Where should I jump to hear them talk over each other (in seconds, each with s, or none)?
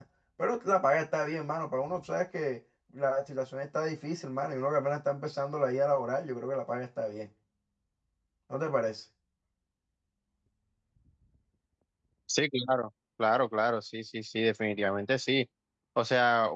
none